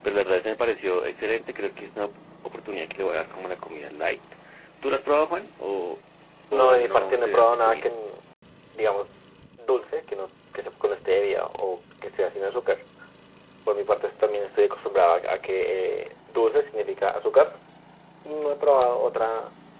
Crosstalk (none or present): present